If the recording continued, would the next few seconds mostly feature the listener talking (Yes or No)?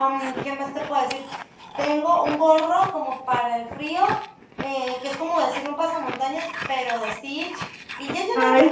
No